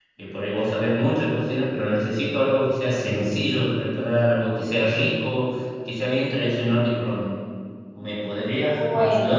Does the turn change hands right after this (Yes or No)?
Yes